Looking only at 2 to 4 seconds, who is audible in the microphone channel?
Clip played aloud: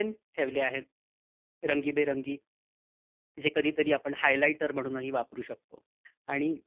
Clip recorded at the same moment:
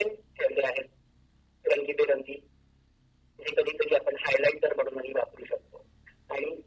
echo only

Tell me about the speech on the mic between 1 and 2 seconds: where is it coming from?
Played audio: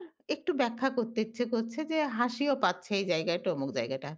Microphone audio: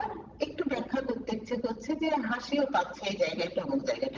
echo only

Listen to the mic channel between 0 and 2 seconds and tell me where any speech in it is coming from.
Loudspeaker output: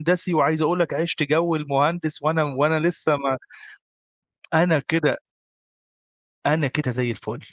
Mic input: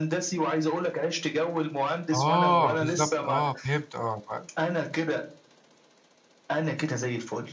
echo only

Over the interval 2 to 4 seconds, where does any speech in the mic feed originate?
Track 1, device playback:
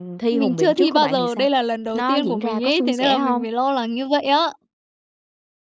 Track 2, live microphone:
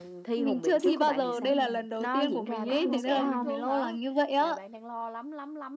both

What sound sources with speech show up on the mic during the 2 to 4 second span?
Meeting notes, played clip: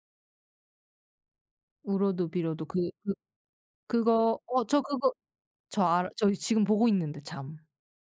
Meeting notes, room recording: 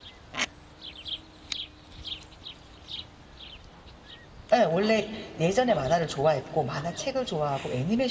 neither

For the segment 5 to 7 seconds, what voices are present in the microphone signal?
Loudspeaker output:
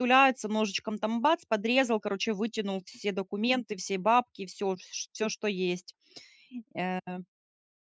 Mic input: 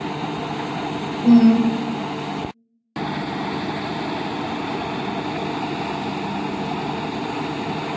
neither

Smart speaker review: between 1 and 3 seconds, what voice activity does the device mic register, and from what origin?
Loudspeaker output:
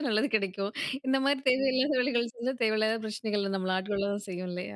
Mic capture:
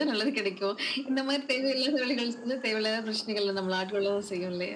echo only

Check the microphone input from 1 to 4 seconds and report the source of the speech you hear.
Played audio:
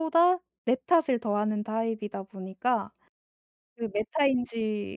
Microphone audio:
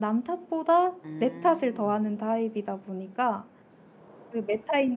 both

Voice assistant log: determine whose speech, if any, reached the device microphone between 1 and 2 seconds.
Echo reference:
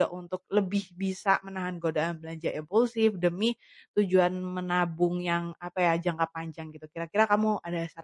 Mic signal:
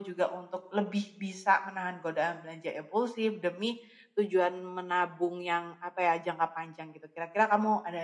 echo only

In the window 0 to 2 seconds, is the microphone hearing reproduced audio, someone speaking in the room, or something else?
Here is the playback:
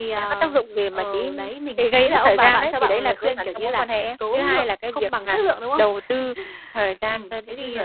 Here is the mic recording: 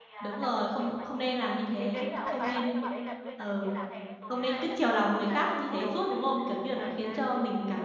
both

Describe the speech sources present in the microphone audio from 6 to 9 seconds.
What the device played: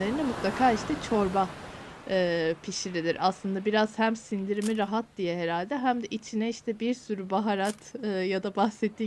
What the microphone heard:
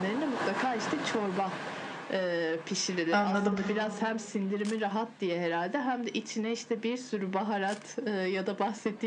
echo only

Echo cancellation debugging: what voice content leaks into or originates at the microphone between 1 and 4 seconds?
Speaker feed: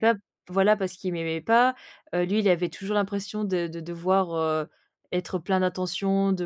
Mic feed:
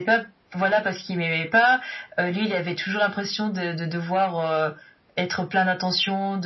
echo only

